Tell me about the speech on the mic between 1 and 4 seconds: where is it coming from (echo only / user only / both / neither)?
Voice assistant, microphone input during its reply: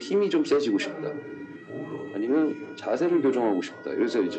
both